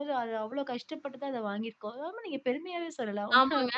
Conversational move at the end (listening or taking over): taking over